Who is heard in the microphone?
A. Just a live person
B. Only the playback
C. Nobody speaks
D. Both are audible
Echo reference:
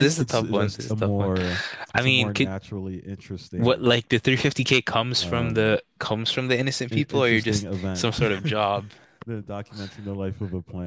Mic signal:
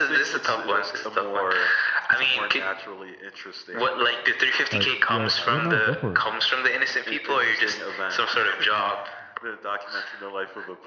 D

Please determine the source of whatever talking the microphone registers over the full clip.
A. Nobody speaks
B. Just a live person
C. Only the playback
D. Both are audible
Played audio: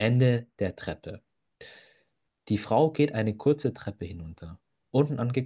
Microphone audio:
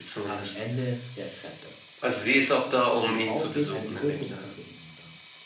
D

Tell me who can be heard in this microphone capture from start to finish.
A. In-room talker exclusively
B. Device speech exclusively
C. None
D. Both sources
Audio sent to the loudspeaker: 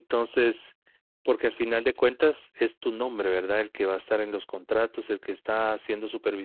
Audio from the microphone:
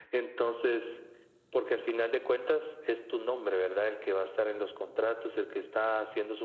B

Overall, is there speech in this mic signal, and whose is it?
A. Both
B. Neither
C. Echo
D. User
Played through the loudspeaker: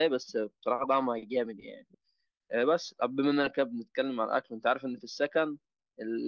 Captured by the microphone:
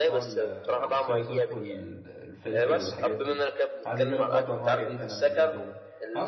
A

